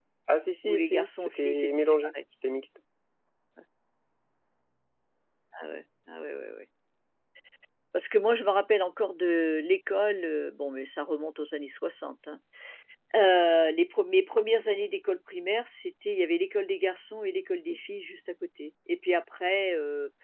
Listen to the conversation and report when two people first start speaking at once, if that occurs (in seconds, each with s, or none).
0.6 s